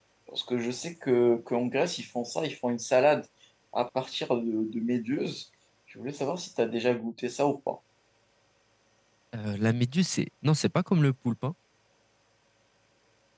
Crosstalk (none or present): none